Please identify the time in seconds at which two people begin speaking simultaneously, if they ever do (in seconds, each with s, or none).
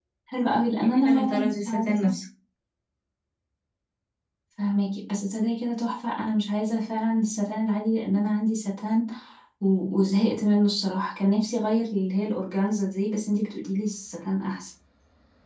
0.8 s